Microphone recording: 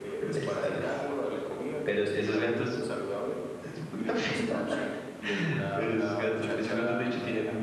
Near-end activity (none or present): present